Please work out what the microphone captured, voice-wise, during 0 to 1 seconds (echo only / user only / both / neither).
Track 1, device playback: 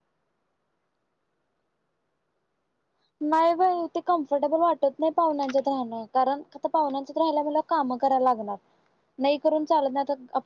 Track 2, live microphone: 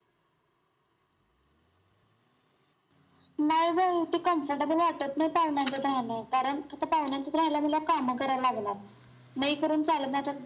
neither